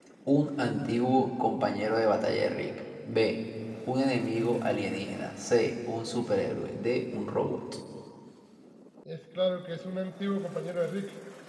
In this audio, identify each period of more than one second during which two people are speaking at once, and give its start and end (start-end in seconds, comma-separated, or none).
none